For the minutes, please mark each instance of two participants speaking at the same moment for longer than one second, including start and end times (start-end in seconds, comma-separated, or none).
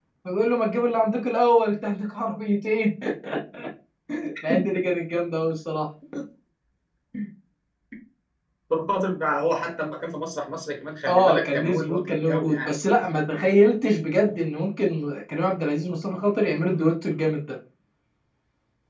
11.1-12.7